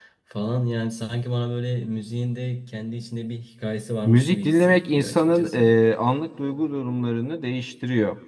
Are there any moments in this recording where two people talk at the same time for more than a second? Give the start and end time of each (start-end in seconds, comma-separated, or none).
4.0-5.7